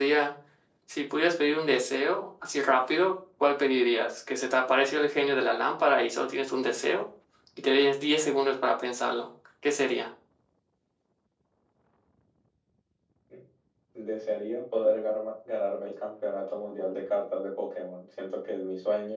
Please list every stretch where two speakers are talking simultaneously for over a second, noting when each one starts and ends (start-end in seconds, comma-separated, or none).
none